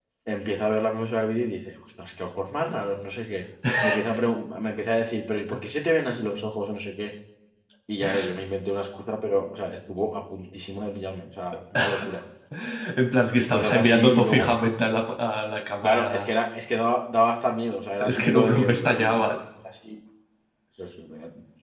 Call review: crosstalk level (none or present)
present